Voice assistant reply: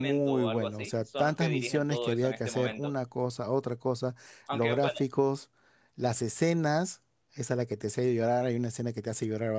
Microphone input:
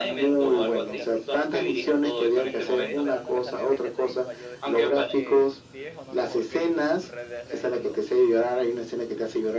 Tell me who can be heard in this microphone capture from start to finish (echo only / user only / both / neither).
both